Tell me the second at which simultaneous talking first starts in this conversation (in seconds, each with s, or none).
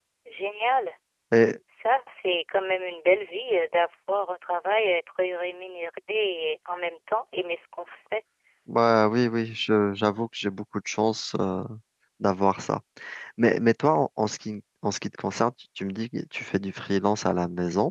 none